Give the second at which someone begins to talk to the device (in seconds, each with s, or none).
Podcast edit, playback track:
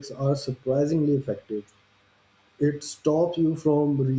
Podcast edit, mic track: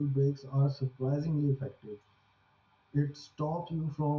none